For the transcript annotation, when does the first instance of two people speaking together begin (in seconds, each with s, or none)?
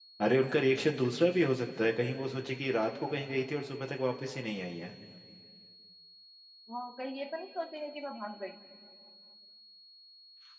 none